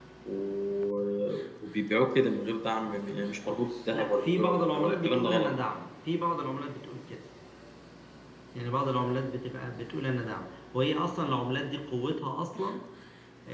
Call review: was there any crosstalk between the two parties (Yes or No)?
Yes